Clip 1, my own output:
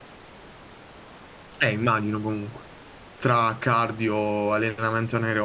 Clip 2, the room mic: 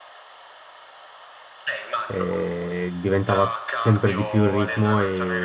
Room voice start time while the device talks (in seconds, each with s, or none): 2.1 s